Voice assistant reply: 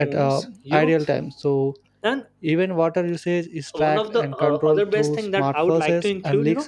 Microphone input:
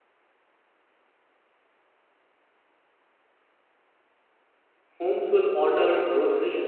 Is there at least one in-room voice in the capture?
Yes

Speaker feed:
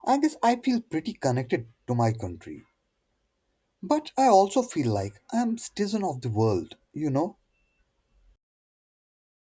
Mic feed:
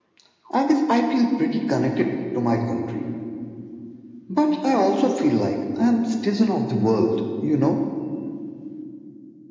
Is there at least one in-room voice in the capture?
No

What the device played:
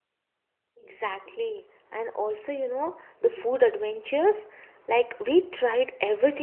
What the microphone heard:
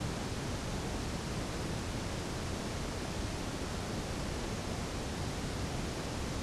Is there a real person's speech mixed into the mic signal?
No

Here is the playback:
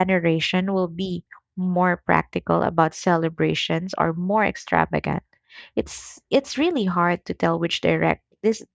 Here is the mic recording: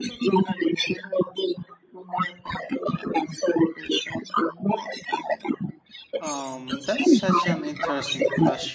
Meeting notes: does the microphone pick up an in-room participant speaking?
Yes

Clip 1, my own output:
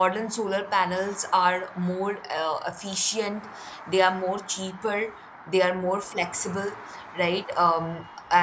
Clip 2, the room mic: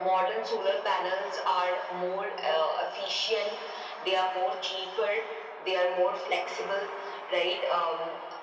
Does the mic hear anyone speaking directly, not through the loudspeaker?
No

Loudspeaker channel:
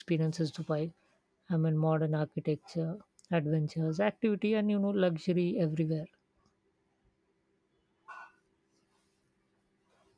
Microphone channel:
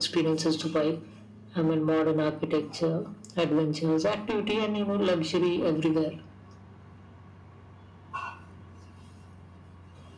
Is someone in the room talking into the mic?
No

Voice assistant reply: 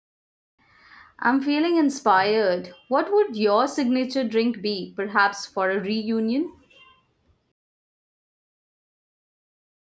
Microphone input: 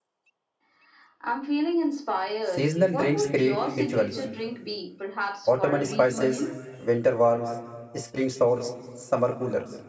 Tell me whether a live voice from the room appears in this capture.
Yes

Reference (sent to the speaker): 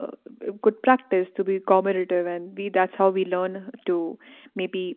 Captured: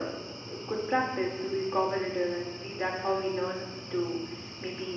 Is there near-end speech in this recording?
No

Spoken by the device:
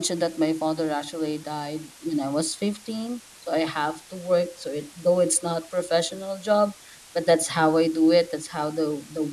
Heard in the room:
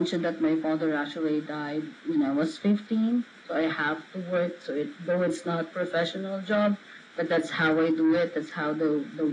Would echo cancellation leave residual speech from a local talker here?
No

